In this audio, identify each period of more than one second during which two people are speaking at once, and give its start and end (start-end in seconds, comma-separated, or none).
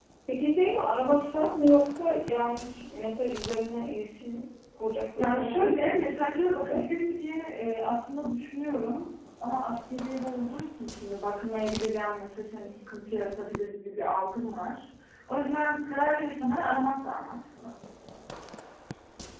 5.2-6.8